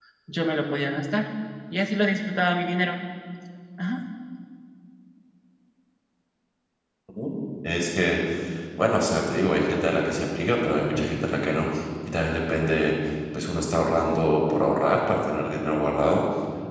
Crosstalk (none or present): none